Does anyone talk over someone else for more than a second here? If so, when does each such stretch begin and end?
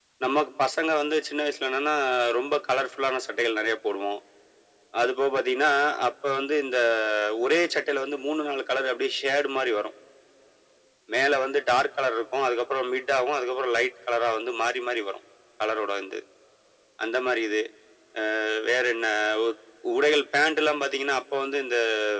none

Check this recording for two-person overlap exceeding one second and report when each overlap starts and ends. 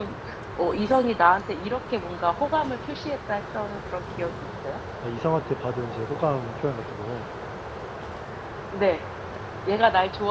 none

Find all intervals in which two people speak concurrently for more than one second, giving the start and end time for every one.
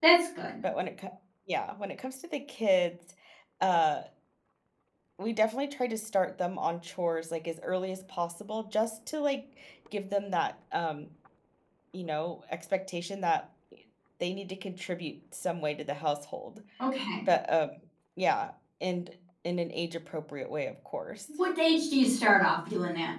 none

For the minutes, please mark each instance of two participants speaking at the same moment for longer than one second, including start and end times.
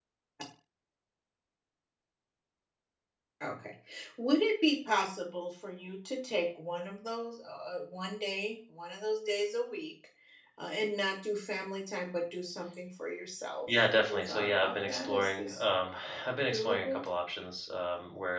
13.9-15.6

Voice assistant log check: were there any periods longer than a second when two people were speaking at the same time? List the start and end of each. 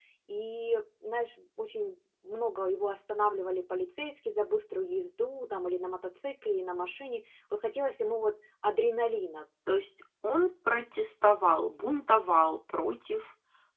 none

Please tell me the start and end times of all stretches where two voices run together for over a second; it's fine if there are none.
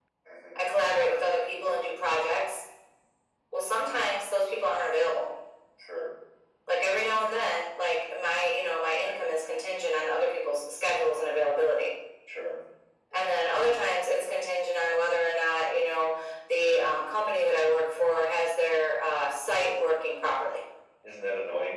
none

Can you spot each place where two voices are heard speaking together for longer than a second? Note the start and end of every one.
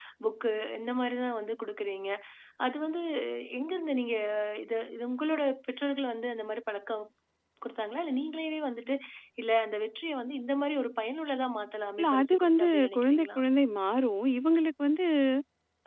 12.0-13.4

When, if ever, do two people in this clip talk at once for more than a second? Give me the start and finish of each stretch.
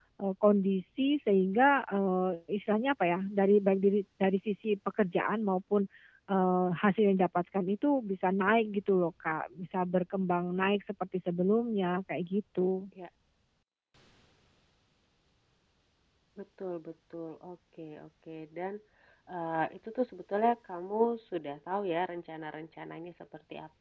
none

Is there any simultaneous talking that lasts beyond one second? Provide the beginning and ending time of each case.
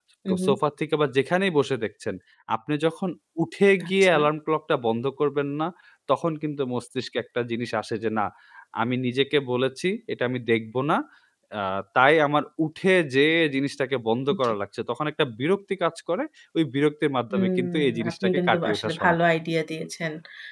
17.3-19.2

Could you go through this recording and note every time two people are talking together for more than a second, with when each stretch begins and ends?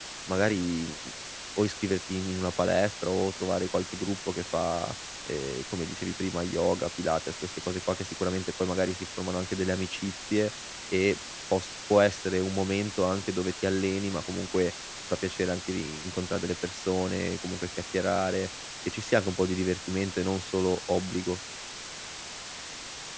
none

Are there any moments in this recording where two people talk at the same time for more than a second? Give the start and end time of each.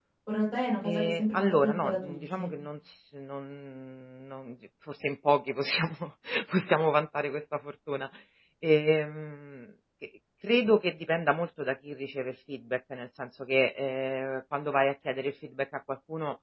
0.8-2.5

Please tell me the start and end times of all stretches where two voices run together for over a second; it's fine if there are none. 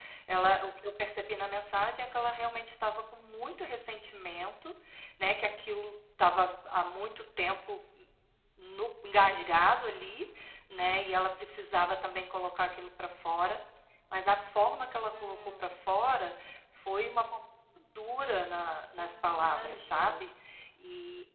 19.0-20.3

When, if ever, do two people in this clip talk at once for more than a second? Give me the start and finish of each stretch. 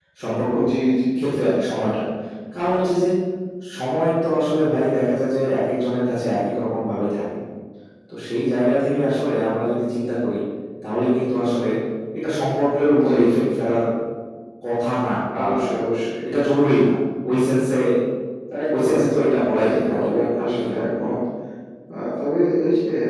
19.7-21.1

